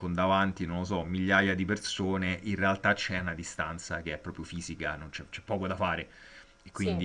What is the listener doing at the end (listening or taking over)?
listening